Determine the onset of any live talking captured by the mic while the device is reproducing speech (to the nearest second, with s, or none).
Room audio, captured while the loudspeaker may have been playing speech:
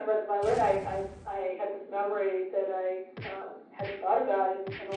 none